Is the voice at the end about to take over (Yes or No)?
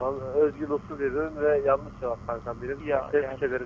No